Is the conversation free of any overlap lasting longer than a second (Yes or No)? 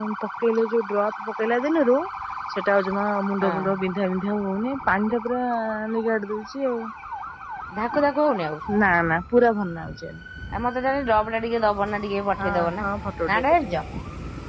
Yes